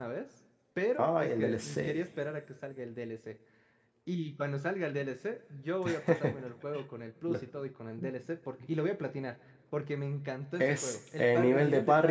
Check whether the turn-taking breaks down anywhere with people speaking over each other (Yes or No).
Yes